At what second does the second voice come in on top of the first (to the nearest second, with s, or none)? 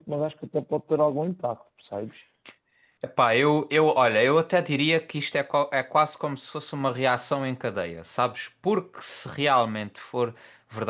none